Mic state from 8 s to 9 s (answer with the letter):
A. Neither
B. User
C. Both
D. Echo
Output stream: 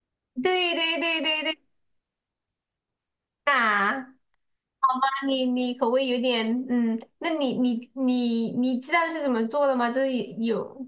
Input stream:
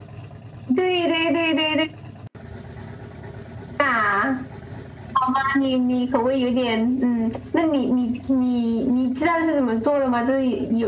D